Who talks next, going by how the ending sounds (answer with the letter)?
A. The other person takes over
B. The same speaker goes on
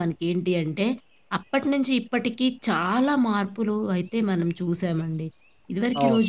B